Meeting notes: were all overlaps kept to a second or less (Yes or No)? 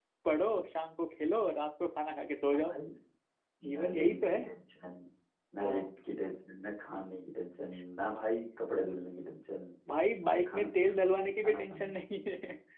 No